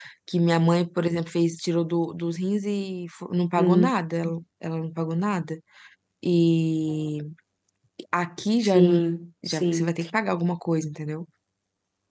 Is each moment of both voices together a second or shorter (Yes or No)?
Yes